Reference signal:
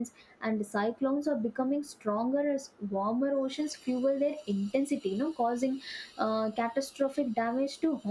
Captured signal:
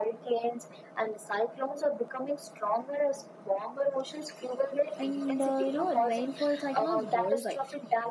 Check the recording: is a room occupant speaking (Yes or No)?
Yes